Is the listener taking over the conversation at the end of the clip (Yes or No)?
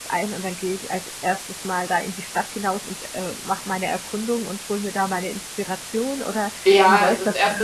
Yes